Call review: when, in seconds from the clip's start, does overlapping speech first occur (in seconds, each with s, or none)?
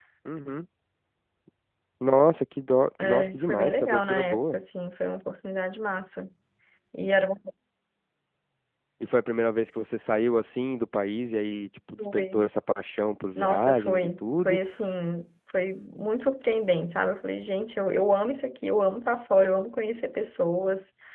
3.0 s